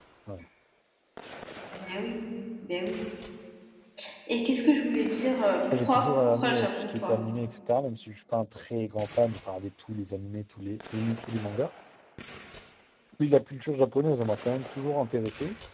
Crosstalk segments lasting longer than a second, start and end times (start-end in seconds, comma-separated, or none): 5.7-7.2